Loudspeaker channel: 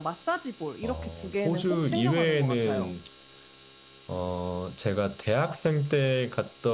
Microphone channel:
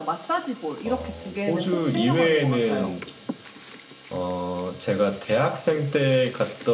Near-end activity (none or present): none